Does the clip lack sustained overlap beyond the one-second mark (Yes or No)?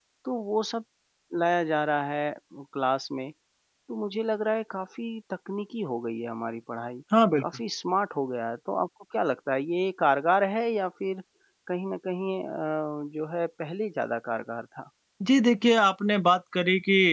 Yes